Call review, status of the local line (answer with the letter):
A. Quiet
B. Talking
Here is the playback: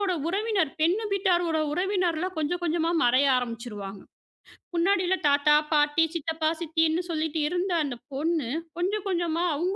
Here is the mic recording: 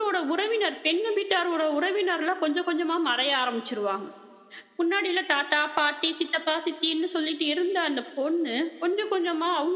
A